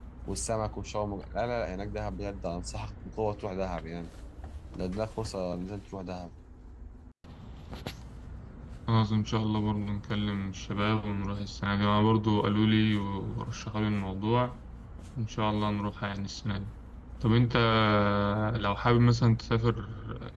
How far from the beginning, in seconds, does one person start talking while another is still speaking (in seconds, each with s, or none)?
none